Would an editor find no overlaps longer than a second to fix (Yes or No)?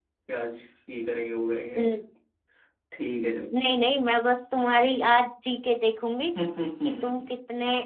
Yes